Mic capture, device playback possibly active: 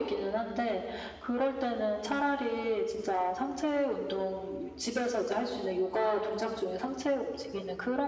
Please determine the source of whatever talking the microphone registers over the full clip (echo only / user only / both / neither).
echo only